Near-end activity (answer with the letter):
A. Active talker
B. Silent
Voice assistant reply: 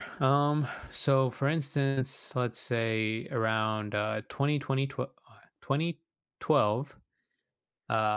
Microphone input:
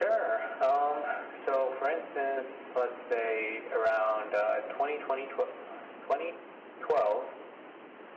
B